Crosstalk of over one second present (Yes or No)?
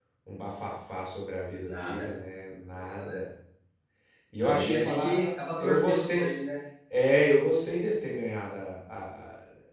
Yes